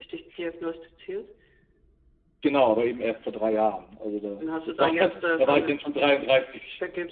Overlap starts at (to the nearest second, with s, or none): 4 s